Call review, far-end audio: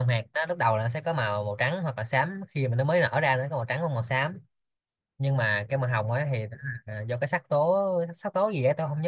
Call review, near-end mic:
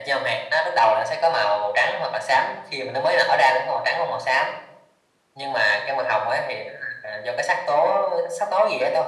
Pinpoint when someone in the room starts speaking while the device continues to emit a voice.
none

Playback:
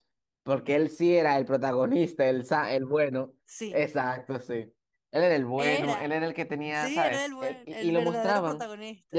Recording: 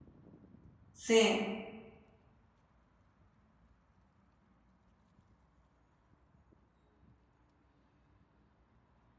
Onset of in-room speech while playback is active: 0.9 s

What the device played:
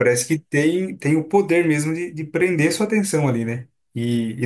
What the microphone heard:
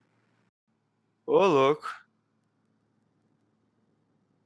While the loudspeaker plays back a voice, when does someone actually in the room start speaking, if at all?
1.2 s

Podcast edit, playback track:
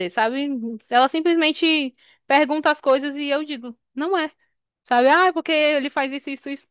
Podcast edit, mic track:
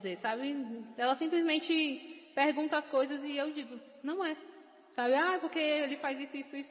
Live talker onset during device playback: none

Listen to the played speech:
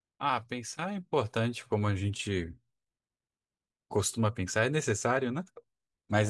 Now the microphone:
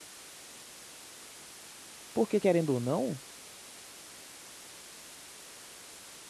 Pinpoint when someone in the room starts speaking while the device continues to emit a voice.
2.1 s

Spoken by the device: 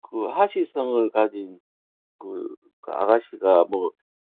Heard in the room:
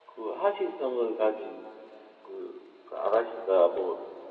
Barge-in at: none

